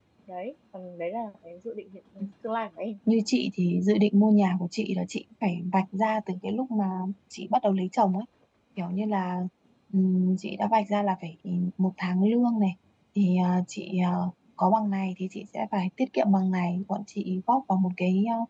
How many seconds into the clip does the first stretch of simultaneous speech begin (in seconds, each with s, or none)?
none